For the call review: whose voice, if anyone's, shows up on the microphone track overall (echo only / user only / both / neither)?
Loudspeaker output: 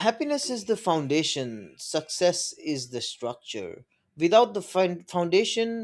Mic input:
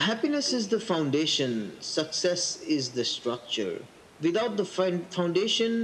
echo only